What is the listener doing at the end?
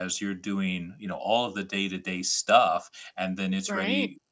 listening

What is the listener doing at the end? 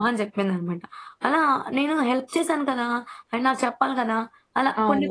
taking over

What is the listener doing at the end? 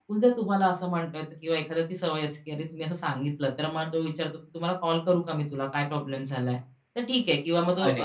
listening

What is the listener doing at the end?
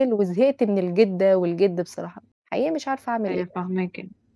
taking over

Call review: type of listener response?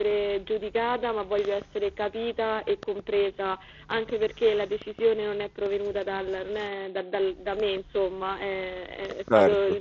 listening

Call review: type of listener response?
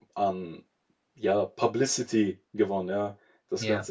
listening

